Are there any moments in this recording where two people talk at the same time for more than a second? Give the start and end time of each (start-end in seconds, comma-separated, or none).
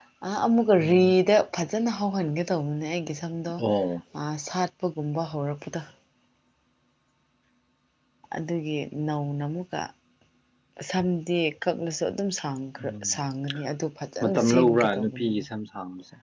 14.2-15.4